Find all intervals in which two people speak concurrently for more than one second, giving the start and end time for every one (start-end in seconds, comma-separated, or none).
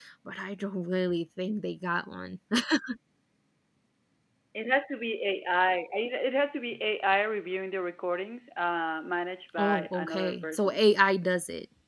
9.6-10.8